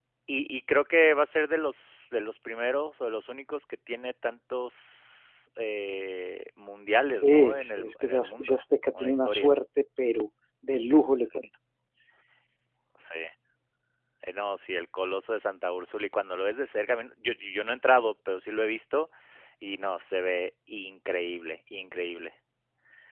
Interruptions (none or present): present